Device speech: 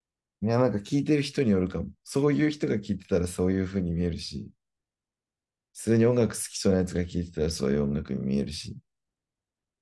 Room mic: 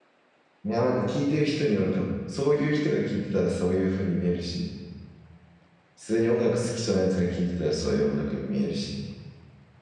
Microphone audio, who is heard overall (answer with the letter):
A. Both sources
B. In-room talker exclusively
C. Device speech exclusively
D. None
C